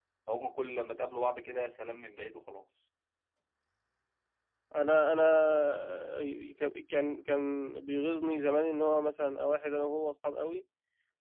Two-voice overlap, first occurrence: none

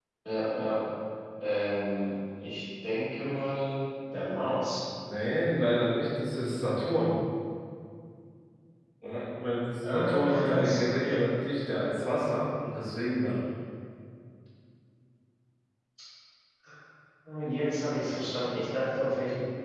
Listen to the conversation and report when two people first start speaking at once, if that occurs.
9.8 s

